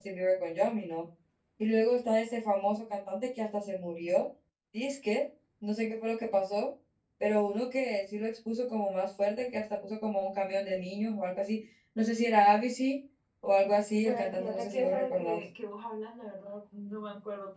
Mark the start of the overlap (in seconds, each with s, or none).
14.0 s